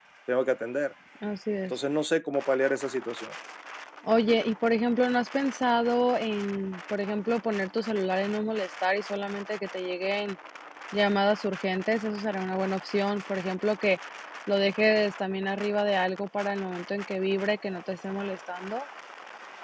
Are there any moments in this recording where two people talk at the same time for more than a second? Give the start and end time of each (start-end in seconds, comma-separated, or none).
none